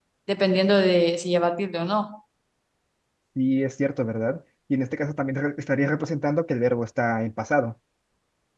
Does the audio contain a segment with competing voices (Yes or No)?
No